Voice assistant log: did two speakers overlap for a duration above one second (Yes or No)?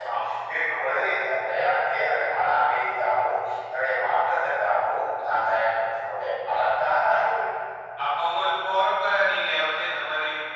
No